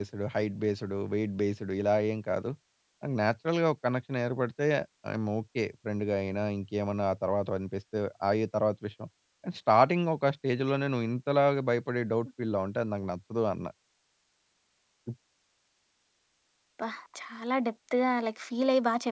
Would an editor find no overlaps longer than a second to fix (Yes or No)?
Yes